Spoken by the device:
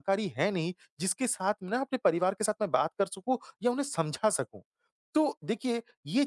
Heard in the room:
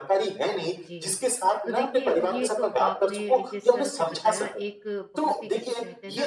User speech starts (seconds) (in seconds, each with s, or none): 0.9 s